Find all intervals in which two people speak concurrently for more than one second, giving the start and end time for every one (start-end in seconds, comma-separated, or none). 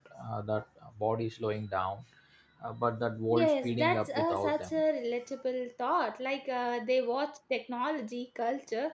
3.3-4.8